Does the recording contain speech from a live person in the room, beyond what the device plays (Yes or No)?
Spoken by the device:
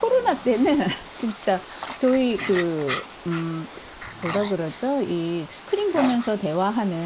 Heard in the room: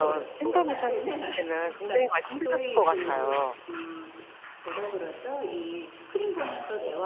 Yes